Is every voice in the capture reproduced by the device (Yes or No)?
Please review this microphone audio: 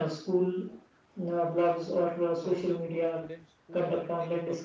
No